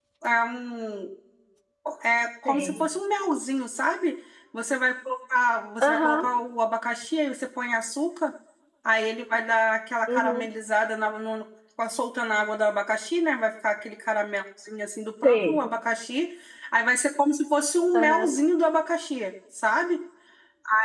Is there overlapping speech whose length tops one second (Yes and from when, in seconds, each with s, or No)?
No